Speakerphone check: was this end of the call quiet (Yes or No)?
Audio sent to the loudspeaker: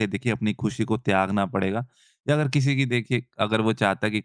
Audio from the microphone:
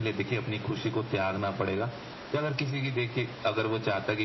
Yes